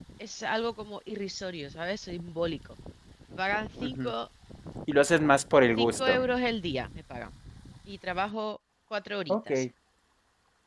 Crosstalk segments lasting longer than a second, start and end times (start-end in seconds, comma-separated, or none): none